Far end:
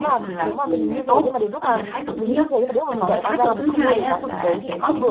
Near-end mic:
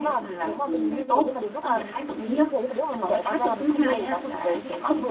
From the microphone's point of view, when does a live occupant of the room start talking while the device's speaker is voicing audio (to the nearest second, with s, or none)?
none